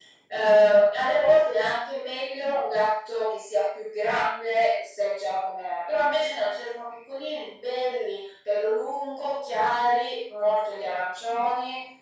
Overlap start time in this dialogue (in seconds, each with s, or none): none